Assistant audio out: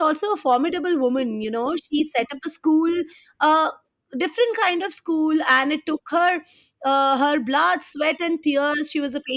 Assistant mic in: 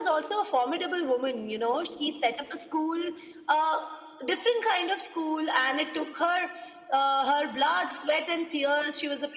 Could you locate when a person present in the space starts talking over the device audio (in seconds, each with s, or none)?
none